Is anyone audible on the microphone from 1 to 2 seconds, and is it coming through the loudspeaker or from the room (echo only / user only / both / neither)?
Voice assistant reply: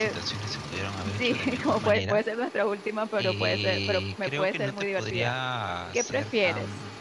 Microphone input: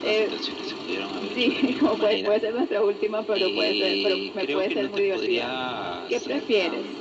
echo only